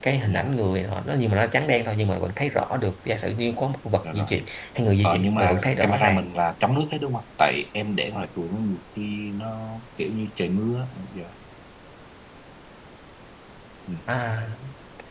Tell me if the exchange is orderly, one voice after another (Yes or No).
No